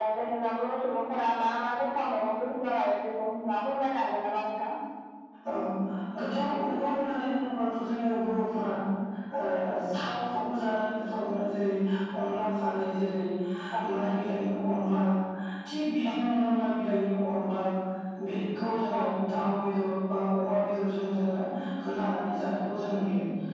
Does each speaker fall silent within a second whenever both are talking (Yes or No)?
Yes